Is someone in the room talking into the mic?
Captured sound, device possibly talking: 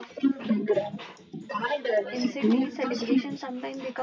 Yes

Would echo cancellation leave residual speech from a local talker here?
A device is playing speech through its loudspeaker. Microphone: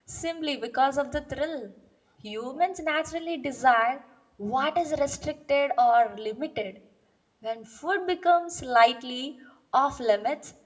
Yes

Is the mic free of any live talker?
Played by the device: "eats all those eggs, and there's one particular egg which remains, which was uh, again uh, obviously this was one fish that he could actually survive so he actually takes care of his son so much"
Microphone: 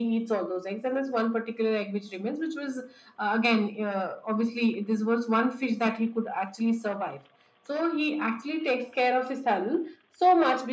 Yes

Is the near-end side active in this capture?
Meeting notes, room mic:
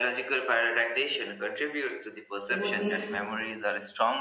Yes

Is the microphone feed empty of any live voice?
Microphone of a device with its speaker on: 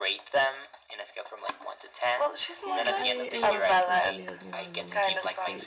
No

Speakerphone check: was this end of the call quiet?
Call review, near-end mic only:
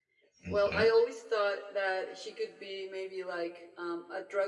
No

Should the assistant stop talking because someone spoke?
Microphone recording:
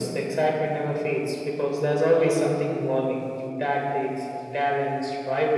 No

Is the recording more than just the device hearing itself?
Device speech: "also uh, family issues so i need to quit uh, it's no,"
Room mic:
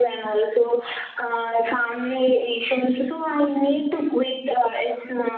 No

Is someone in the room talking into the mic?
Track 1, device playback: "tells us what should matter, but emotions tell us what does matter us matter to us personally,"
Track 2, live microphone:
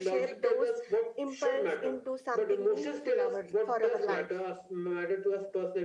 Yes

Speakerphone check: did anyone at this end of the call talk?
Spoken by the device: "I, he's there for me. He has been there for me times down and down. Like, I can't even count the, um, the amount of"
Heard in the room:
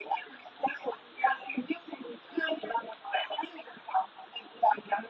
No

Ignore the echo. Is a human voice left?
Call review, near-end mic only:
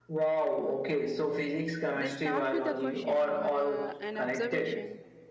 Yes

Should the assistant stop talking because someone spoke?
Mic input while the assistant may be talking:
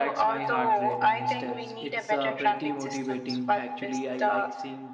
Yes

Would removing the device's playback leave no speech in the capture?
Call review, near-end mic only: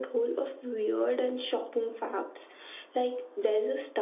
Yes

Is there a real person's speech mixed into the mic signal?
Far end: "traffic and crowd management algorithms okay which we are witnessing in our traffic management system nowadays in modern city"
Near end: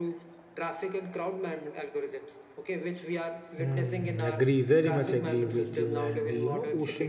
Yes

